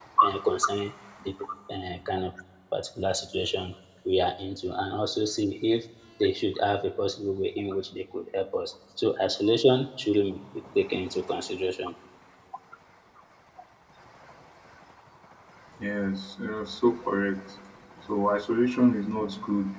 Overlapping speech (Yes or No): No